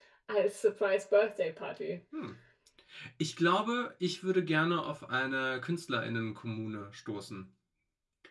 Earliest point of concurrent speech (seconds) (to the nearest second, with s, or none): none